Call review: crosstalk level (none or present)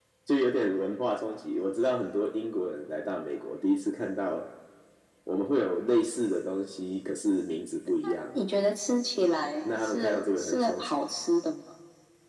present